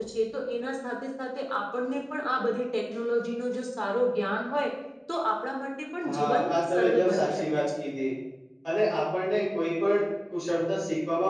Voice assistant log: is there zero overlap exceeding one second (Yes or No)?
No